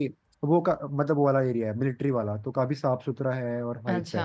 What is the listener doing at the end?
taking over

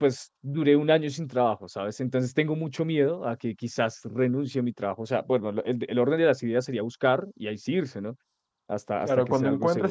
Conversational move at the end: taking over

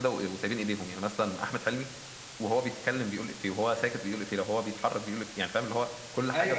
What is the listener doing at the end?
taking over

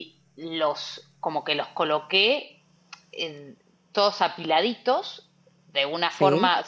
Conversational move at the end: listening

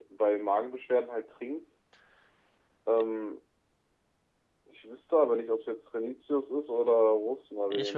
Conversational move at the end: taking over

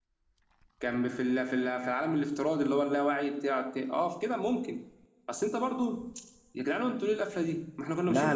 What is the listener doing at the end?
taking over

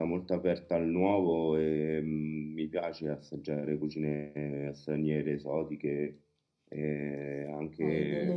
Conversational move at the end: taking over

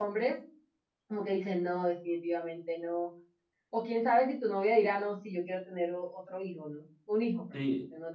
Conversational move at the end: taking over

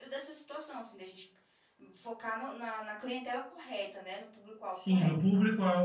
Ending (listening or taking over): taking over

